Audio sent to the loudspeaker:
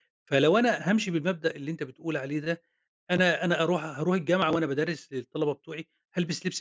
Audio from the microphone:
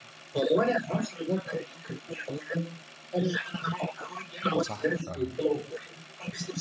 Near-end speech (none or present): present